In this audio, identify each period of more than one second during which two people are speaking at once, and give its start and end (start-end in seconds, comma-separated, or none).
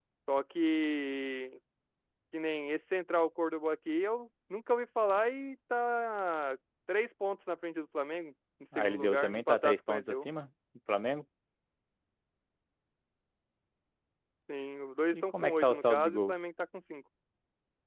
8.8-10.3, 15.1-16.4